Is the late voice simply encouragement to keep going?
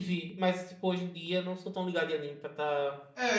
No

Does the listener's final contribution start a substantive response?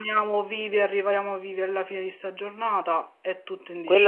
Yes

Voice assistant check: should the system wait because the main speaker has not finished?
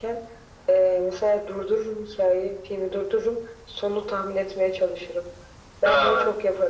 Yes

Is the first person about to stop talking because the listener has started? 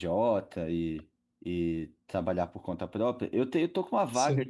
No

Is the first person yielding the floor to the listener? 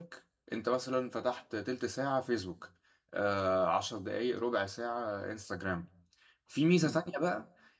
No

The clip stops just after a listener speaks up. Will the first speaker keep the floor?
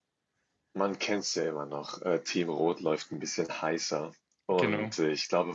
Yes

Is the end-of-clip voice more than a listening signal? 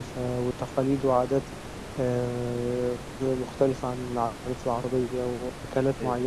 No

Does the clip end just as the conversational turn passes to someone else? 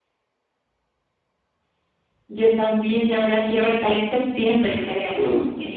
Yes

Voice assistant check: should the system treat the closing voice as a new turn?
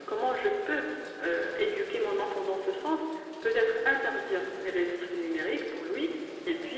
No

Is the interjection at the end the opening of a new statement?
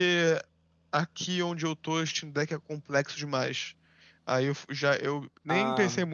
No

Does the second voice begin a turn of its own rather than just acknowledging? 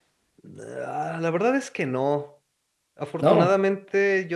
No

